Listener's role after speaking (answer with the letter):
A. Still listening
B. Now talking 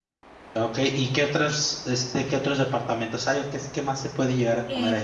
B